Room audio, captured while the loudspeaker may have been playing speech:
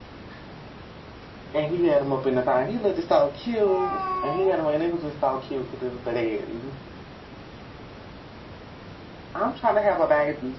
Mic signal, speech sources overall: both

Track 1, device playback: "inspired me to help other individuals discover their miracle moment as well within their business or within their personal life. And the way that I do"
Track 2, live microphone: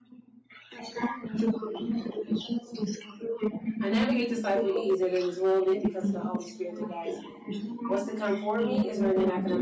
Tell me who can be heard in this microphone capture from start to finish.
both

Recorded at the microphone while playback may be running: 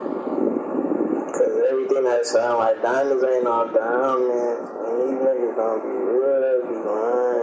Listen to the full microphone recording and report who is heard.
echo only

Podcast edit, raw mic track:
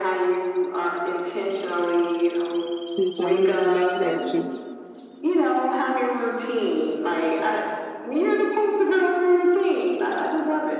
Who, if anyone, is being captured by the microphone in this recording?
both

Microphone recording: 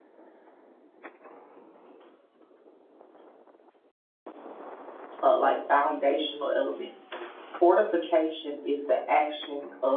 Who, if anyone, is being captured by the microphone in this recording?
user only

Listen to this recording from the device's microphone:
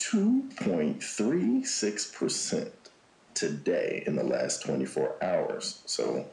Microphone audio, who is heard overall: echo only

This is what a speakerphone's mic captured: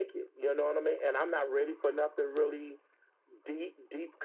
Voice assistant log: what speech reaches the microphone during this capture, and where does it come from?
echo only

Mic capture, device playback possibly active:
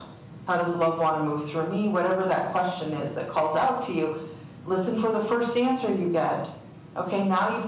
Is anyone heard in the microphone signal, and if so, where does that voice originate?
echo only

